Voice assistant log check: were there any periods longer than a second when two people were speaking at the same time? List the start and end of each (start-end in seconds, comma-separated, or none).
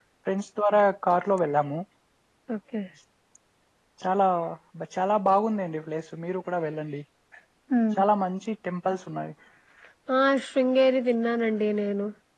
none